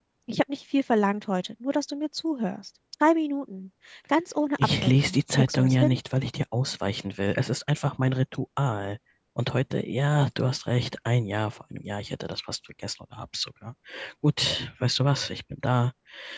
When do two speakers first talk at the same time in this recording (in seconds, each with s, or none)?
4.6 s